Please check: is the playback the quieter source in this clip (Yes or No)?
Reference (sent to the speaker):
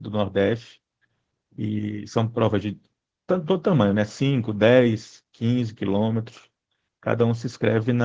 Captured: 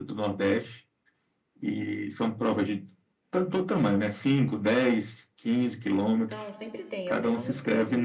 No